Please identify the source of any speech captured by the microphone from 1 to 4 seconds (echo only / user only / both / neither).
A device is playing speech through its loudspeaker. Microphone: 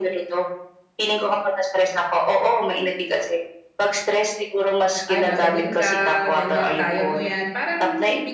echo only